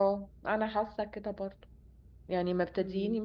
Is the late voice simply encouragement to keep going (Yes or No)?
Yes